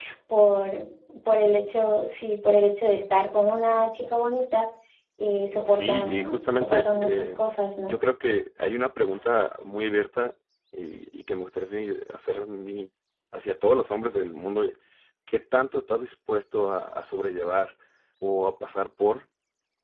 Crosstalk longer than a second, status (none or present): present